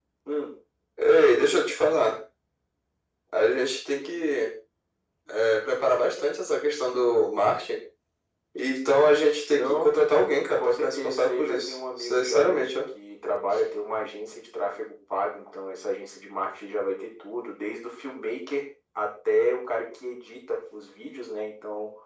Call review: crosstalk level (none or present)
present